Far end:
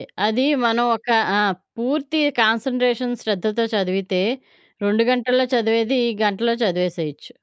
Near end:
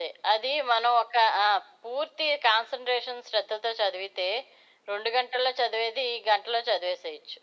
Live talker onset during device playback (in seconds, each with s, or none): none